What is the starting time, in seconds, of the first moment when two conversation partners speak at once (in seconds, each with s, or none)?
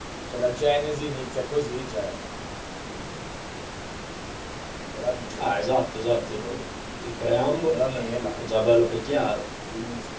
none